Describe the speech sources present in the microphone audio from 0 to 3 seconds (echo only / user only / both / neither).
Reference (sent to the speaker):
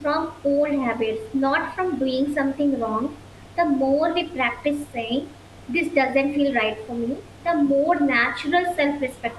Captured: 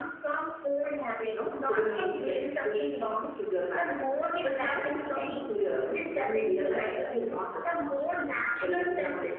both